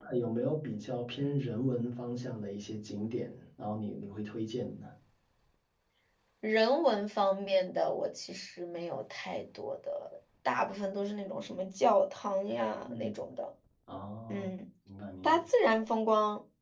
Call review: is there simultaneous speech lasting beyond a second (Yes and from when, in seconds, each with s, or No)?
No